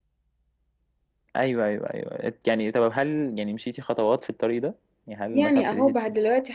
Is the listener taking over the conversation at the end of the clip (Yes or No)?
Yes